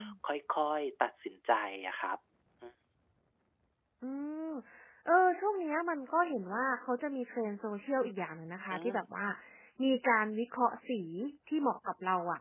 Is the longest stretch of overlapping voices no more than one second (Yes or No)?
Yes